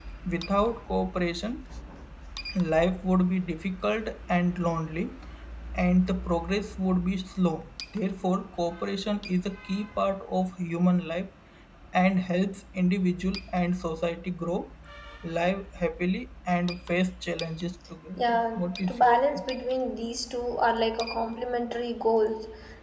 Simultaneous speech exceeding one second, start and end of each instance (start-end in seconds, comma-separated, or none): 18.2-19.4